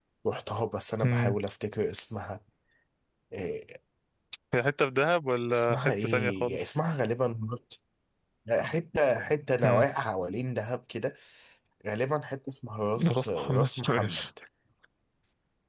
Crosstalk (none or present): present